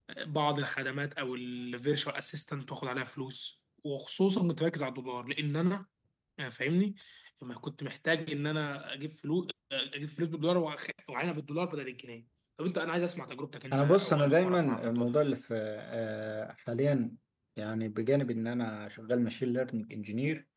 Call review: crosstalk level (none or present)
present